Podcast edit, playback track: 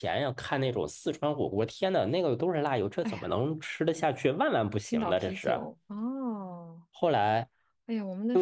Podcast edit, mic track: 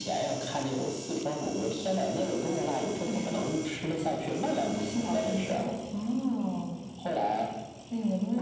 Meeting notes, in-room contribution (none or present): none